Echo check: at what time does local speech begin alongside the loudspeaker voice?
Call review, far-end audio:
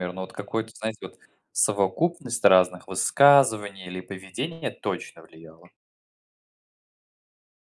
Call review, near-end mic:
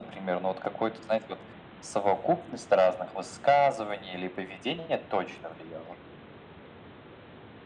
none

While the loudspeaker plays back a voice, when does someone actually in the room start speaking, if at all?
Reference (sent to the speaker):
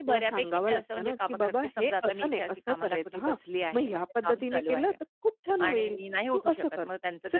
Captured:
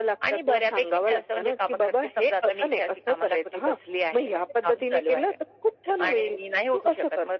none

